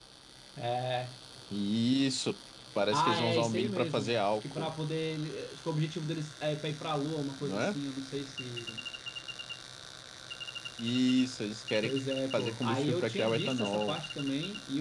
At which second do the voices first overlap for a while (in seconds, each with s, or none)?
2.9 s